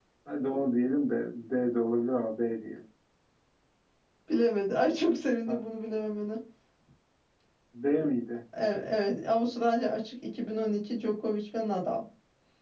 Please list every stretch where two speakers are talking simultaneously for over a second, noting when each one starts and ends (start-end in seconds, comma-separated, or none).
none